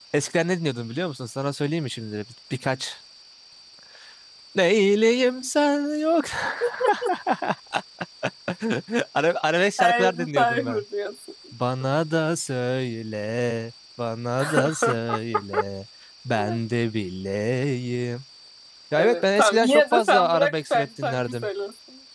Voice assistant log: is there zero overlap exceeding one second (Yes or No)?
No